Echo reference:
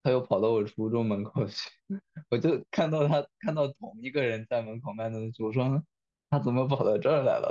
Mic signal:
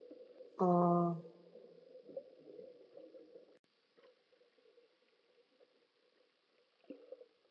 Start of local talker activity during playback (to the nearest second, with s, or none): 1 s